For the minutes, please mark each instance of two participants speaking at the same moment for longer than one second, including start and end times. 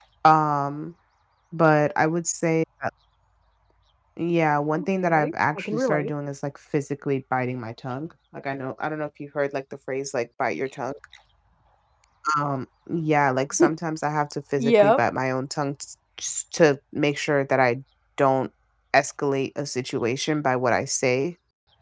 4.7-6.1

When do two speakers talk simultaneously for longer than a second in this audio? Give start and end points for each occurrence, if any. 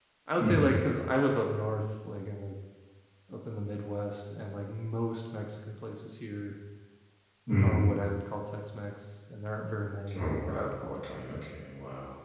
10.1-11.6

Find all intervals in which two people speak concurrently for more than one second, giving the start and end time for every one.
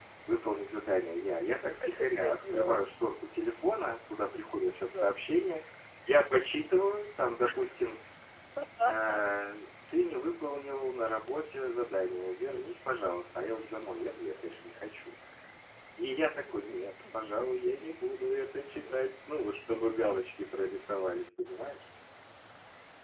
1.5-2.8

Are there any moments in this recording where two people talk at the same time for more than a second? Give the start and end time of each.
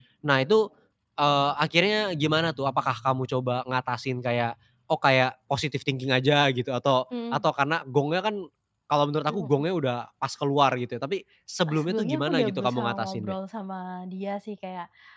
11.7-13.3

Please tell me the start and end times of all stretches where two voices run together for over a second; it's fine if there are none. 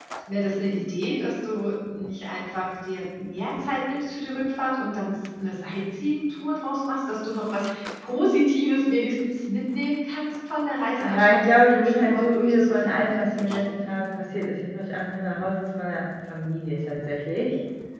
11.0-14.0

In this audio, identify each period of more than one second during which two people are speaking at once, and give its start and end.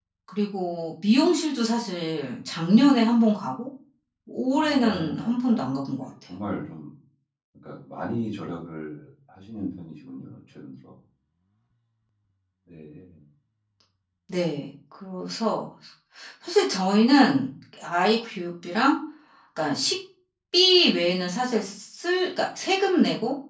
4.5-6.1

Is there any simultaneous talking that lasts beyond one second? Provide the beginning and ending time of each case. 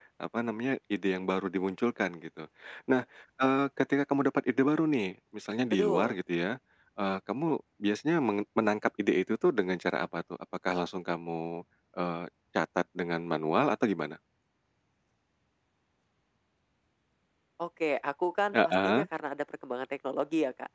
none

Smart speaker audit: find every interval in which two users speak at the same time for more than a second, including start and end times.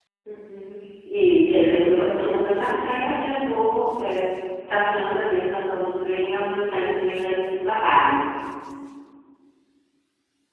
1.5-2.9

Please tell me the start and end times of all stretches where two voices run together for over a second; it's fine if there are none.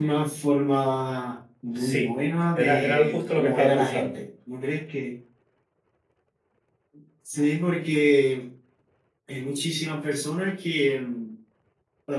2.5-4.2

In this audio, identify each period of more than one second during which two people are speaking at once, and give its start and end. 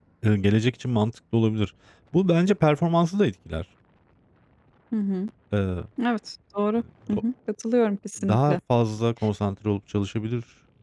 none

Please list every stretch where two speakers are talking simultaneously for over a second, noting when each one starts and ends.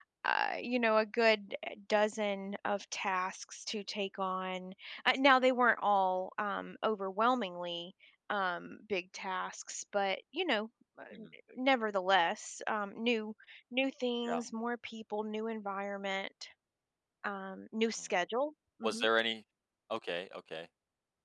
none

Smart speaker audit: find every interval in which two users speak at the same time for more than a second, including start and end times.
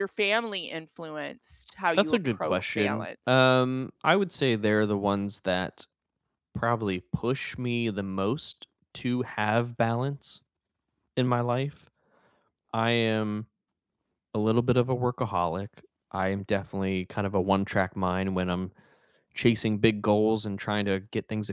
1.9-3.4

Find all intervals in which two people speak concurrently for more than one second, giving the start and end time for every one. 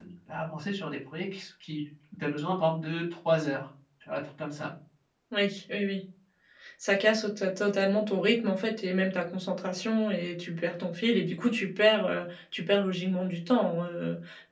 none

